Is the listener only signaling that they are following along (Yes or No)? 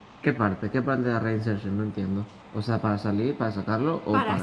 No